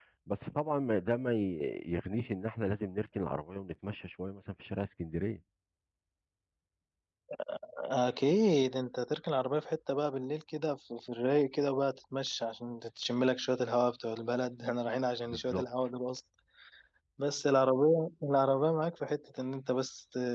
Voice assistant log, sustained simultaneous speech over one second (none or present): none